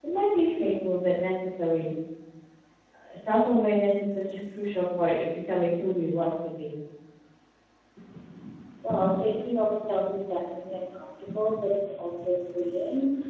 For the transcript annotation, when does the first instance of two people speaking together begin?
none

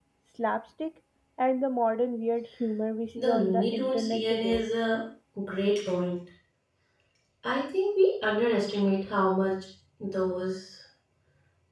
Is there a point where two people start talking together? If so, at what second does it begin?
3 s

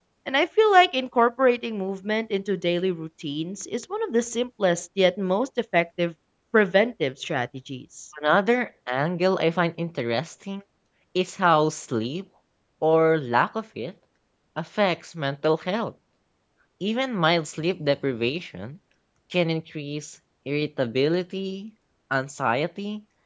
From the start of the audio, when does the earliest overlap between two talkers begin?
none

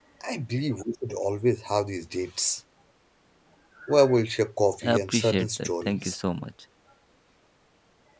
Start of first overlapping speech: 5 s

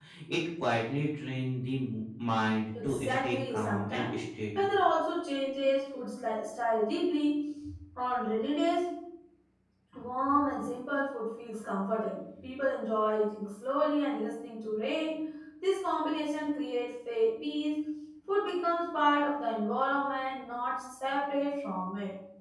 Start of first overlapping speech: 3 s

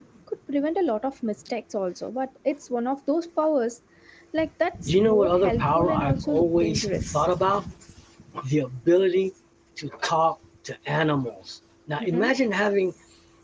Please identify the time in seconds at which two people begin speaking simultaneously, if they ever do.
5 s

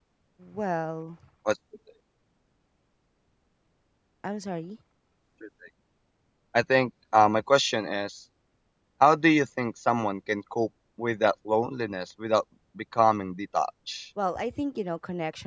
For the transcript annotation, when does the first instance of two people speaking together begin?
none

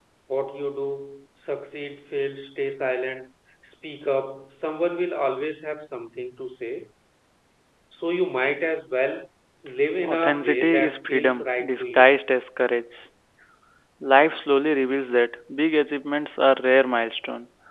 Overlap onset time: 10 s

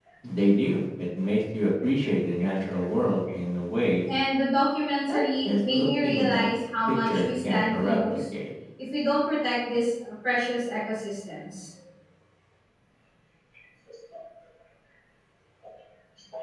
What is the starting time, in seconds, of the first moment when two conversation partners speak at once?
5 s

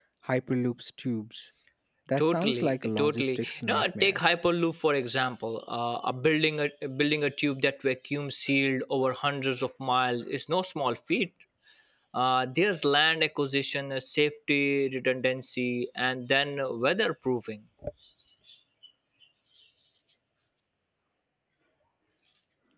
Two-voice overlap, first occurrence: 2 s

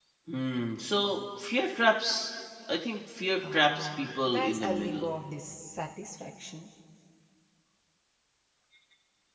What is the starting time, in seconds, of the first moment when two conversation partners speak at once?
3 s

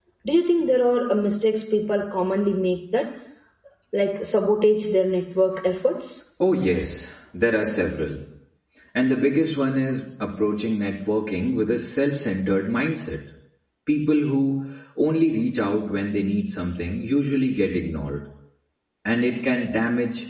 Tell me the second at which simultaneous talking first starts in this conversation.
none

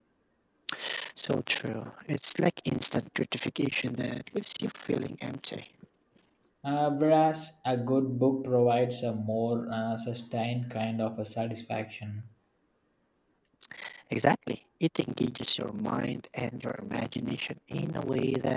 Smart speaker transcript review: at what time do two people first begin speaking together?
none

